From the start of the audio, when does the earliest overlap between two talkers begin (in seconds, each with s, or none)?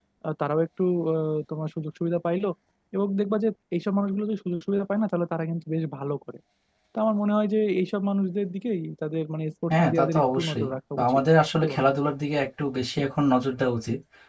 9.7 s